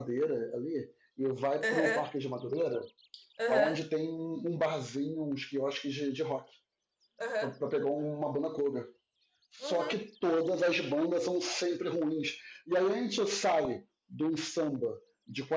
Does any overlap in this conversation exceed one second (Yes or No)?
No